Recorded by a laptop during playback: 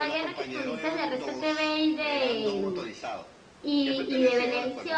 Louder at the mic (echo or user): user